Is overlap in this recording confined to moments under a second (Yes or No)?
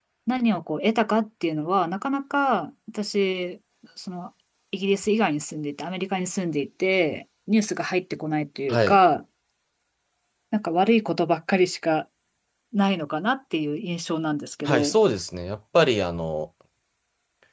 Yes